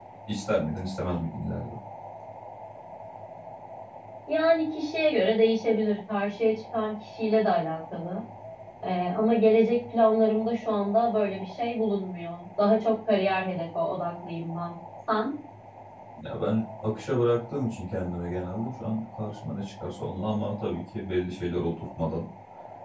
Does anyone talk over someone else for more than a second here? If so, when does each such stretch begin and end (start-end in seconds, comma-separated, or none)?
none